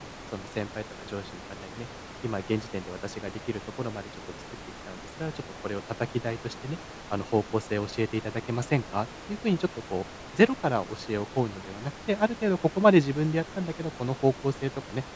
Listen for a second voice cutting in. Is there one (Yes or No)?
No